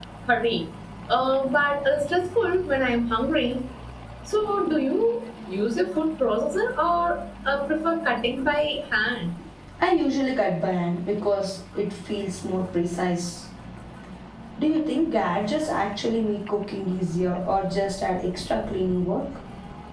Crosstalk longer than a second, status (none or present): none